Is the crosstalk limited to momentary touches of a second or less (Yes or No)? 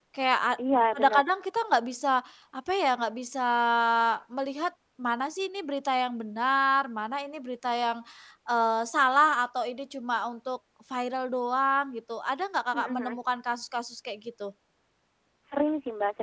Yes